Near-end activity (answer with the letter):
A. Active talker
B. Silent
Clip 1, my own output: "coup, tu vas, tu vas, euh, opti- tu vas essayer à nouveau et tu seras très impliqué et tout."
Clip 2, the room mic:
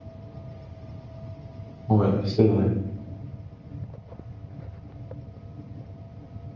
A